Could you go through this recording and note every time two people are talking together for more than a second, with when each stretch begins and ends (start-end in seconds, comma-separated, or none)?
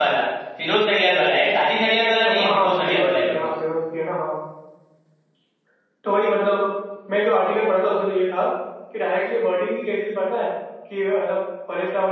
2.3-3.5